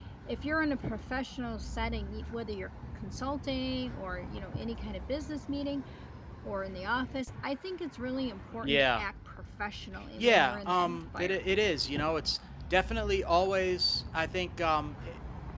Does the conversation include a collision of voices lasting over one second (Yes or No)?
Yes